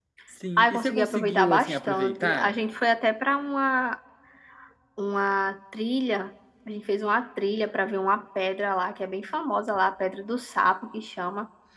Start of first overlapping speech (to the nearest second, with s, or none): 1 s